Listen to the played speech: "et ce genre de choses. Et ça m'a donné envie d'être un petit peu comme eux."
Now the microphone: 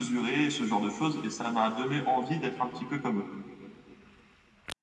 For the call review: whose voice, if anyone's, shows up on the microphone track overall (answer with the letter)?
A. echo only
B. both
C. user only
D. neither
A